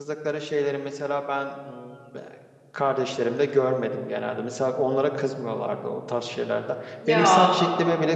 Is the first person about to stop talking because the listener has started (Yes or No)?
No